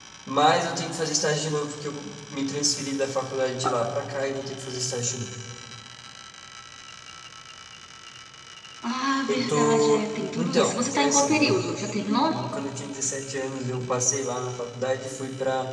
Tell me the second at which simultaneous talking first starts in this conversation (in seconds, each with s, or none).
9.3 s